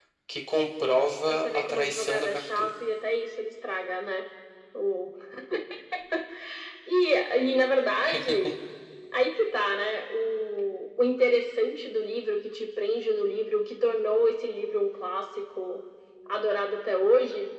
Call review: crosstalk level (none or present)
present